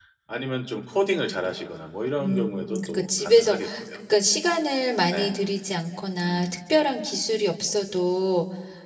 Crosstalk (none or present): present